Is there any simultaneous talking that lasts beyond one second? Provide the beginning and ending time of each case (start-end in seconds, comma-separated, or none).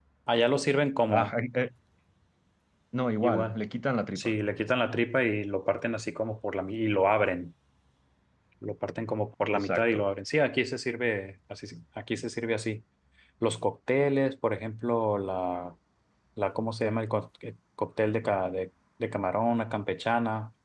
none